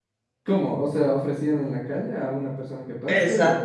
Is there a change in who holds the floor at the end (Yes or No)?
Yes